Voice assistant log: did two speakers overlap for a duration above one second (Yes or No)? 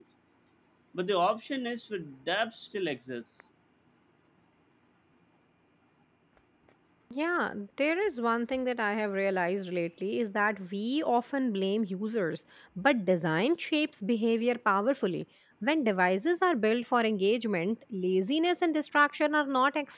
No